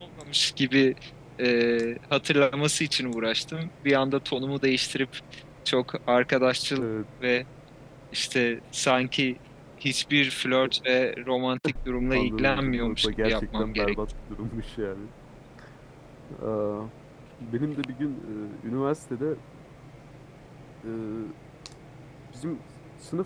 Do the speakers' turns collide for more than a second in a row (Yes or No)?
Yes